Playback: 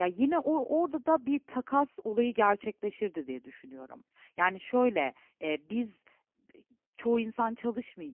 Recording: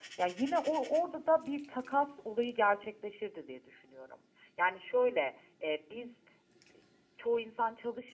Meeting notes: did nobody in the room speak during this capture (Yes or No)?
Yes